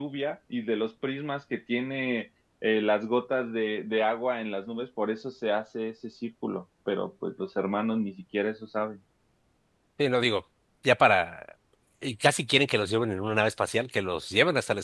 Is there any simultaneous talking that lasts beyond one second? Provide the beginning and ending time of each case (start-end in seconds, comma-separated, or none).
none